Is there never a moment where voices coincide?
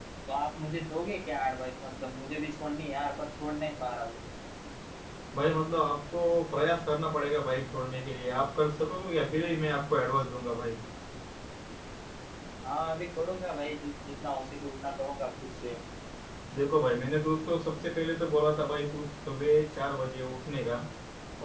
Yes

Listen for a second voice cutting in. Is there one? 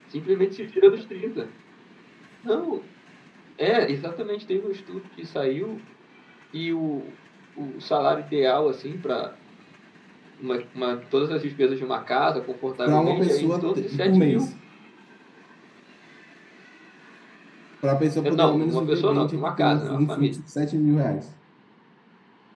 Yes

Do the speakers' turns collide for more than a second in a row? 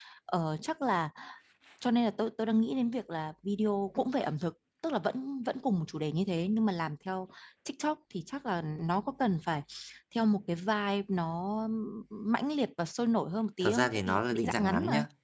Yes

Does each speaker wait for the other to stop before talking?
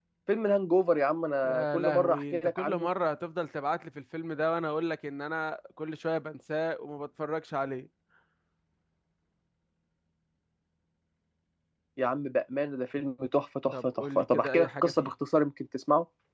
No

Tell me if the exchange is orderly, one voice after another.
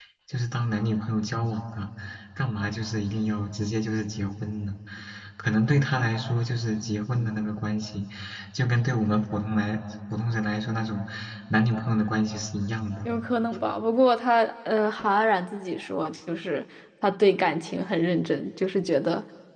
Yes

